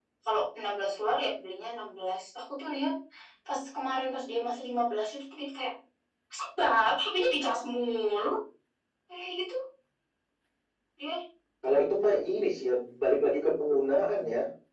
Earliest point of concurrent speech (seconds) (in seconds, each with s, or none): none